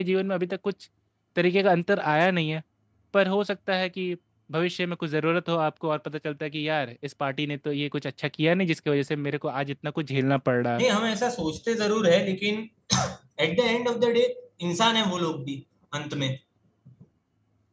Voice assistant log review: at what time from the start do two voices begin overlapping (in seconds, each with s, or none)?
none